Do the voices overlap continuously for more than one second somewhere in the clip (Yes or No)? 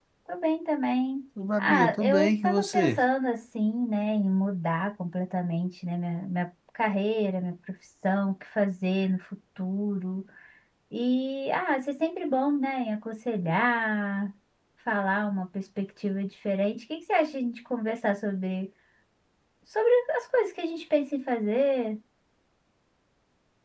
Yes